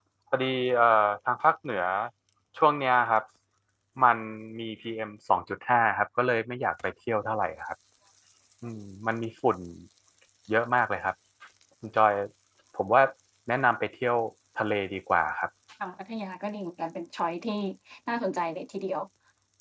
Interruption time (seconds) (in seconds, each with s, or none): none